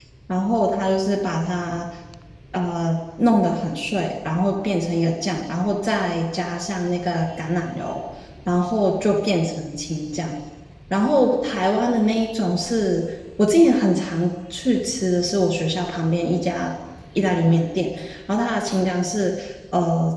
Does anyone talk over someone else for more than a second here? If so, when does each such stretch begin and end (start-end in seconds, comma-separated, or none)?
none